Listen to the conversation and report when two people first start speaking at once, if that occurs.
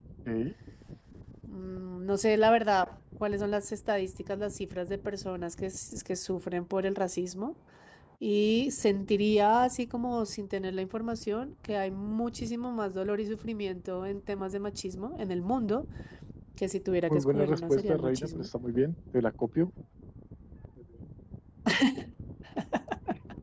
17 s

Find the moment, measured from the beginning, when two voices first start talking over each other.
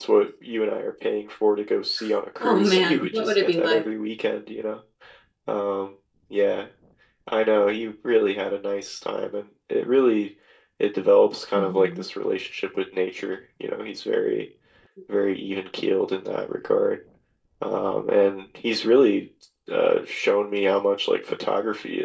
2 s

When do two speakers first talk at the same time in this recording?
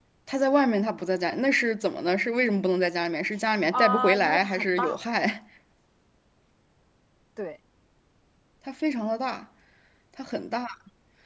4 s

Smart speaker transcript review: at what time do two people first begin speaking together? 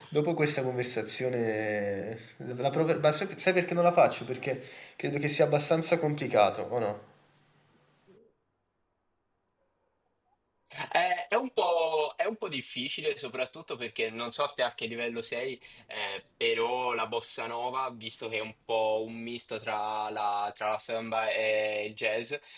none

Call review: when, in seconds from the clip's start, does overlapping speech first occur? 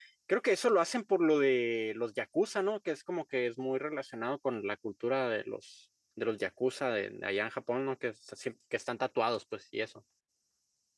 none

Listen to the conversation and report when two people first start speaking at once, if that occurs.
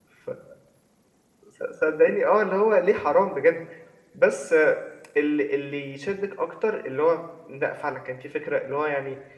none

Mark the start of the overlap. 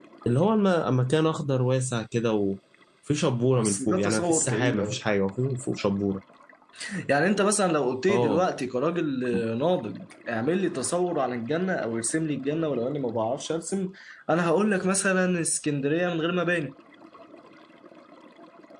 4 s

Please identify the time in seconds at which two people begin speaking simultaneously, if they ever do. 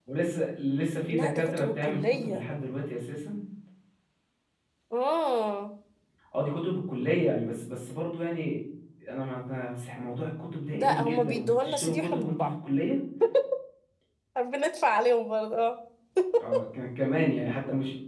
1 s

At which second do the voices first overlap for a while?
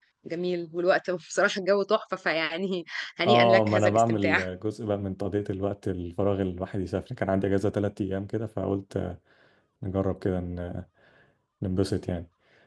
3 s

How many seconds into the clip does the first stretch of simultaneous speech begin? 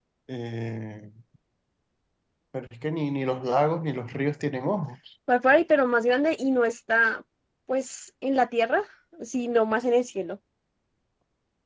none

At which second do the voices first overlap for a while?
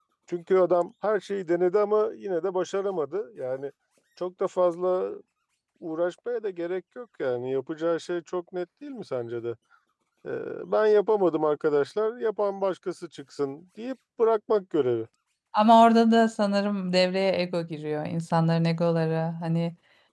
none

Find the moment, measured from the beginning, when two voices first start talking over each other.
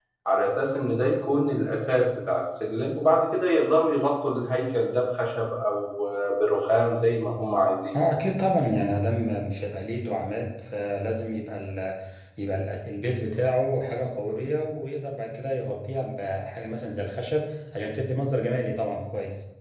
none

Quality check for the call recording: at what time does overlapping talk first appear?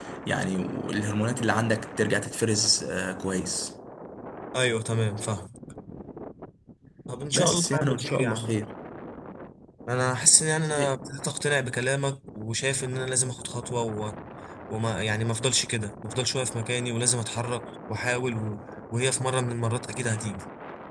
7 s

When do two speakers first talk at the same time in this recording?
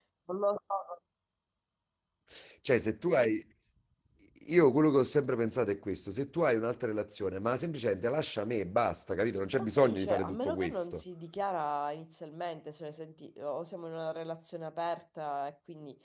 10 s

